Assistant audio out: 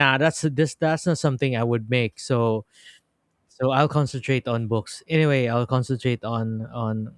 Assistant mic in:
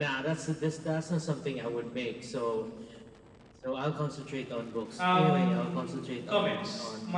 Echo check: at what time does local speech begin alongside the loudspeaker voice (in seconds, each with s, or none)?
5.0 s